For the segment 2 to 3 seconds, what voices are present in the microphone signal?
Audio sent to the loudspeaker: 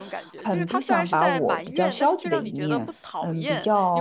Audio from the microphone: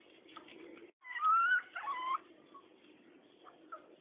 neither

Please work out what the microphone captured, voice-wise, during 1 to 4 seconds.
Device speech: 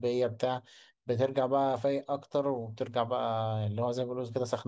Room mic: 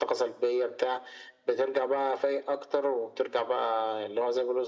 echo only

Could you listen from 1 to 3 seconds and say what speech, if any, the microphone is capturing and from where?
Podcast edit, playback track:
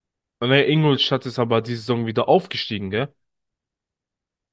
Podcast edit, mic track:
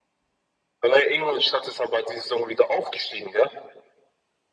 echo only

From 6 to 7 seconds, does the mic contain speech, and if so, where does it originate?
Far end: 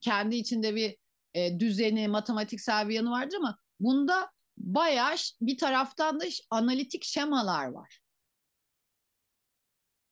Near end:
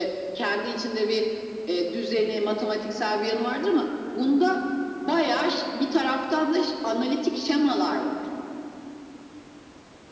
echo only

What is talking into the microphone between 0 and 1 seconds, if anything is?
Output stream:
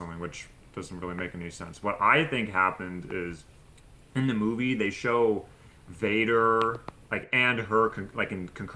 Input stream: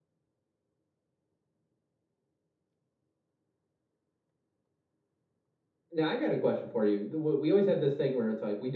neither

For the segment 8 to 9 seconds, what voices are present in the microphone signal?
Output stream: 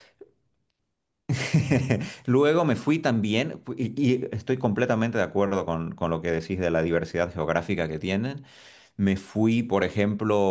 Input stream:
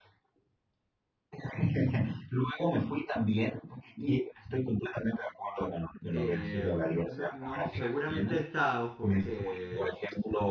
both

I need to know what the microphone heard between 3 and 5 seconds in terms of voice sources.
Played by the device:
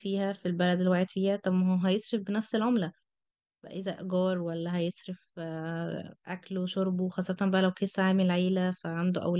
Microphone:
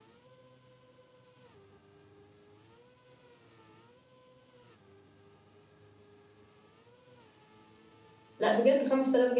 neither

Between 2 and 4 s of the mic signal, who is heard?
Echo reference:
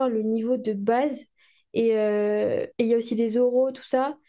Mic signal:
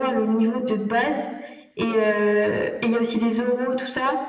echo only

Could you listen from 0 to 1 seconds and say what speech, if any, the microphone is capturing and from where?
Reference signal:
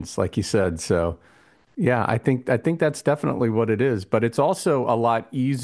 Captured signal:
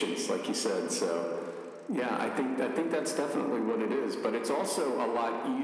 echo only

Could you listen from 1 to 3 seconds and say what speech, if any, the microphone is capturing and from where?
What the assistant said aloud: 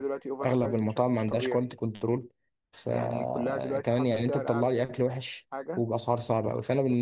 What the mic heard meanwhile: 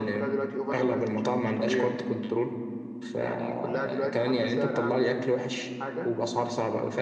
echo only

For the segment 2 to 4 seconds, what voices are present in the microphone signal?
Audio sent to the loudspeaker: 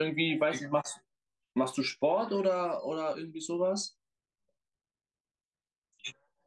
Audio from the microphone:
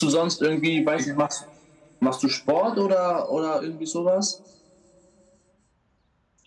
echo only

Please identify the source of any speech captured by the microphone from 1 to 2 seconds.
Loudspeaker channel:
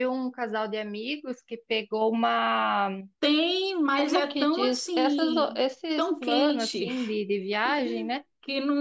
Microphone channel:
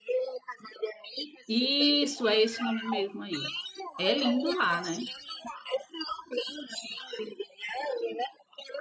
both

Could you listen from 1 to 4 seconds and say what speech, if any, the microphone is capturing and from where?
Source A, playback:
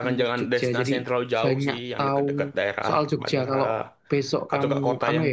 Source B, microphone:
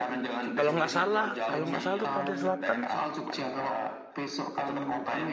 both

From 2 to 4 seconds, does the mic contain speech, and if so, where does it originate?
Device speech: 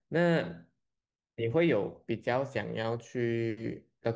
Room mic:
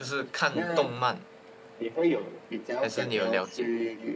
both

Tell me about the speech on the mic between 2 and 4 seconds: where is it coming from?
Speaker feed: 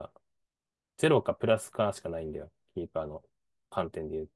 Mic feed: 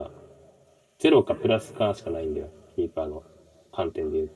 echo only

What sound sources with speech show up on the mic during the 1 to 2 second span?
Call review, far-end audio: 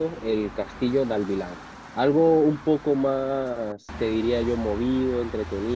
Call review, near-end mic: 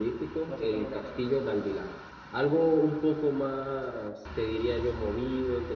both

